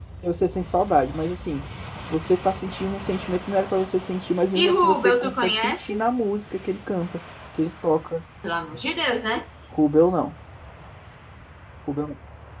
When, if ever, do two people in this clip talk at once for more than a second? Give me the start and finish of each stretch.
4.5-5.9

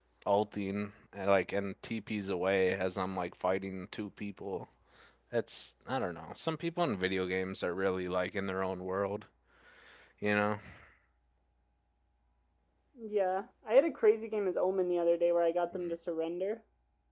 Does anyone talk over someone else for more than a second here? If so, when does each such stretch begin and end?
none

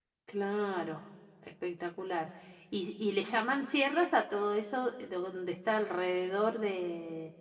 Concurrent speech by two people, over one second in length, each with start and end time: none

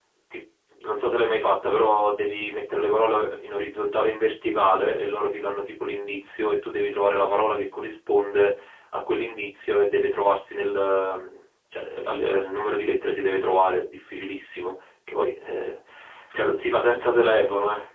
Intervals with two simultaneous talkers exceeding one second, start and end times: none

